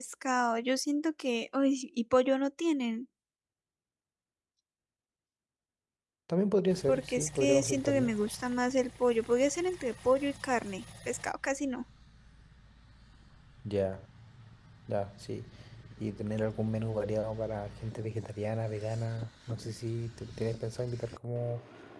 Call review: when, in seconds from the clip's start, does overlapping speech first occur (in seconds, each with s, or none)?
6.9 s